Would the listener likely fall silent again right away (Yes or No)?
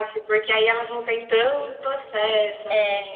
No